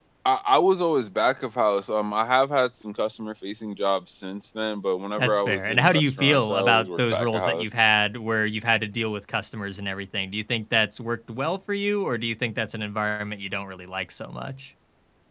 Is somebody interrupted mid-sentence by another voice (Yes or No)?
Yes